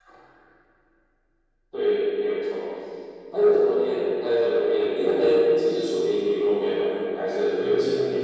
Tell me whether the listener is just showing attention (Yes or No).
No